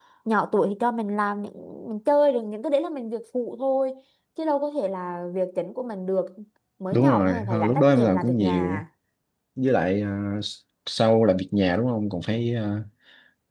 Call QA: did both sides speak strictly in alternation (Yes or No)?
No